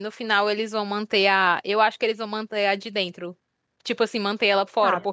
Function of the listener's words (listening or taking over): listening